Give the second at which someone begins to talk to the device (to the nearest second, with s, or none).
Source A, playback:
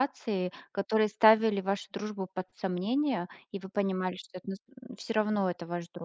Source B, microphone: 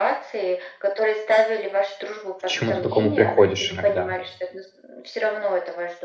2 s